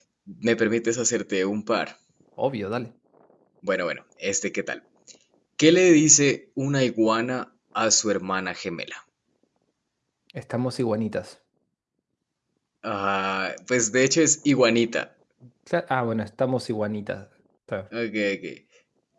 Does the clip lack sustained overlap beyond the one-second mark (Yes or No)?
Yes